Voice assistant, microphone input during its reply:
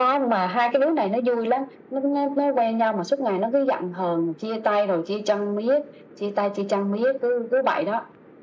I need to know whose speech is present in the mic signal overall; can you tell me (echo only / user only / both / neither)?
echo only